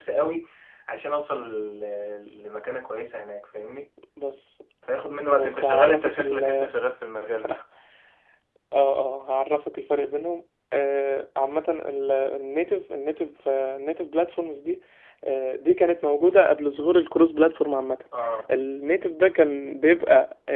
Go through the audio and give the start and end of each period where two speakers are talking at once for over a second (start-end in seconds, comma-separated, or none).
5.3-6.7